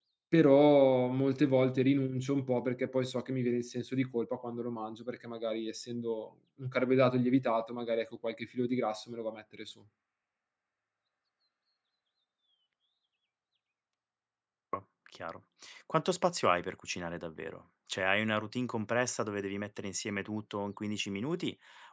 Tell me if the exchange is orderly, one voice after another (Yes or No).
Yes